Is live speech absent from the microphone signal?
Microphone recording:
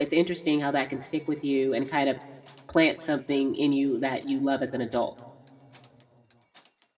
No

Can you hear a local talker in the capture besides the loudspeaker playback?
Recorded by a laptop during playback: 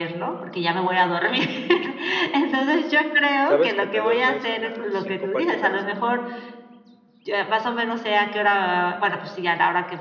Yes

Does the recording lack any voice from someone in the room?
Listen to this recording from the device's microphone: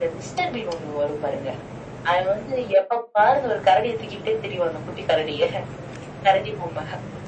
Yes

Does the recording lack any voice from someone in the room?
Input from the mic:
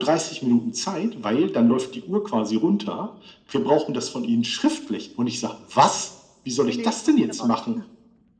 No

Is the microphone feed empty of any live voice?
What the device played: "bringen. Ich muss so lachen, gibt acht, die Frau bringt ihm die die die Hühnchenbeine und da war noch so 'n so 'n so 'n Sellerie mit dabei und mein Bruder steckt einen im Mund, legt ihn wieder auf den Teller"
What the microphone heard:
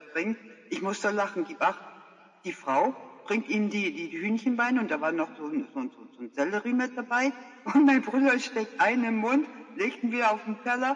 Yes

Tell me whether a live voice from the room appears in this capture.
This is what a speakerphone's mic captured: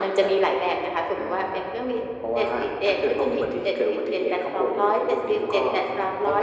No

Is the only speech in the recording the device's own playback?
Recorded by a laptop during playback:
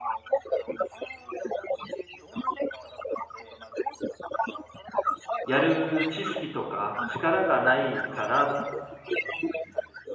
No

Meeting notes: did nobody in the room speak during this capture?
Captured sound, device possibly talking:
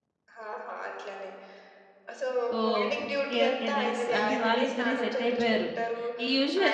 No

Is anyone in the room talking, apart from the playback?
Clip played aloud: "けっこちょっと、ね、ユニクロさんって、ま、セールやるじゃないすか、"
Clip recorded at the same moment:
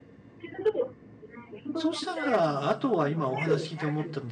Yes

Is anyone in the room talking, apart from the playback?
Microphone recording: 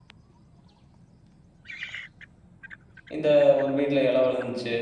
Yes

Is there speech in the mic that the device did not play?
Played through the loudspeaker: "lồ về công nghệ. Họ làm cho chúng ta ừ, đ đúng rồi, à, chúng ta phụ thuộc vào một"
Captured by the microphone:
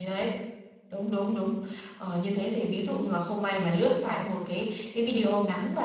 Yes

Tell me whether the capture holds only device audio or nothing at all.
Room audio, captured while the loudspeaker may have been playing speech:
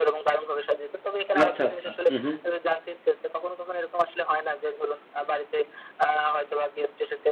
No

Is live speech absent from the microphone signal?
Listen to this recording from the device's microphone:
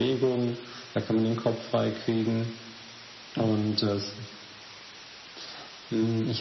Yes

